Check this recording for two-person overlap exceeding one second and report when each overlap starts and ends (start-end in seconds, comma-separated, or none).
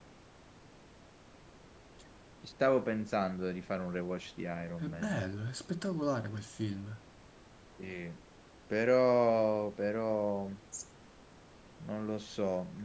none